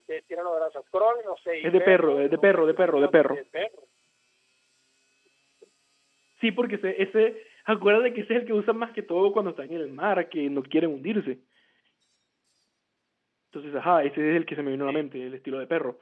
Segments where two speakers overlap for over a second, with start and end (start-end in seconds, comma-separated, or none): 1.6-3.4